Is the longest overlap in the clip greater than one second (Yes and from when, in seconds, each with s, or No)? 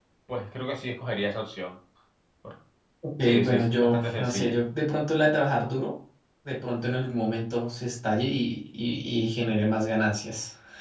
Yes, from 3.2 s